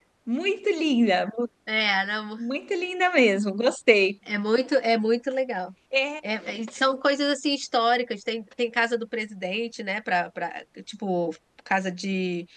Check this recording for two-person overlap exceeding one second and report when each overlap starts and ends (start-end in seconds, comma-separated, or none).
none